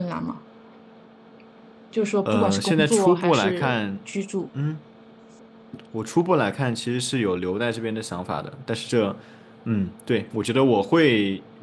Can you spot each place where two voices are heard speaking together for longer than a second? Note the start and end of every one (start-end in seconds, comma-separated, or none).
2.2-3.8